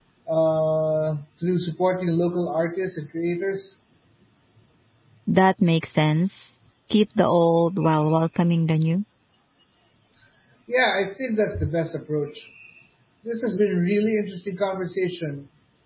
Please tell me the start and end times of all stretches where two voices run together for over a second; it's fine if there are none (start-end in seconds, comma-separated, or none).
none